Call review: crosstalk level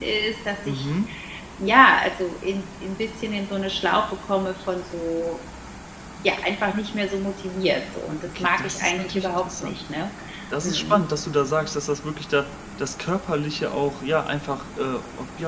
present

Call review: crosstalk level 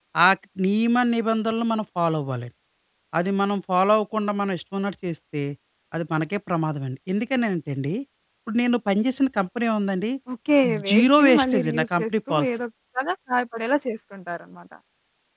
present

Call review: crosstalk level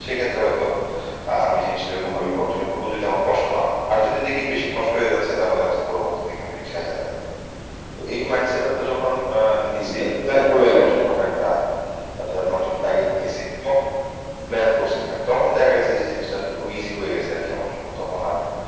present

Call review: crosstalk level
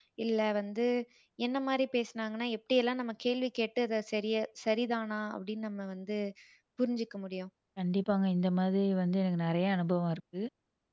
none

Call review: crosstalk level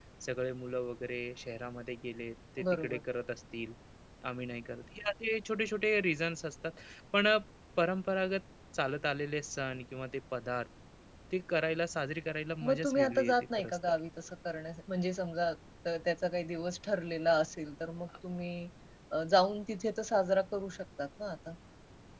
present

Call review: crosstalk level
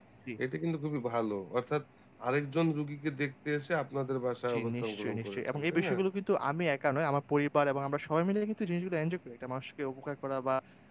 present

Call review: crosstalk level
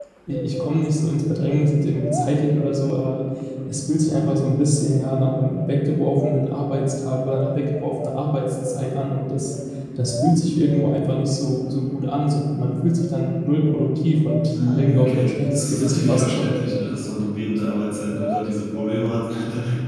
present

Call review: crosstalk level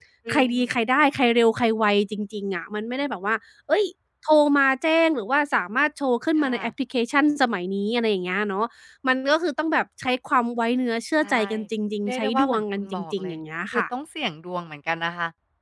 present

